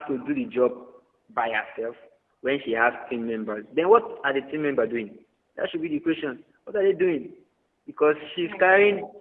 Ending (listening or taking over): listening